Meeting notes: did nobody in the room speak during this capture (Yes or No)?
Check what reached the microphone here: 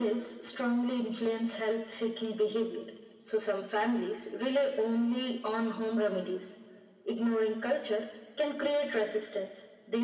Yes